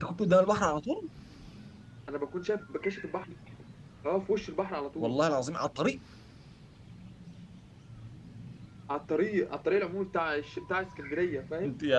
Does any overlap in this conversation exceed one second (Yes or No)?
No